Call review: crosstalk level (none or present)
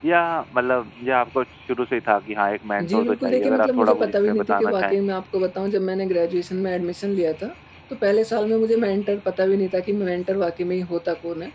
present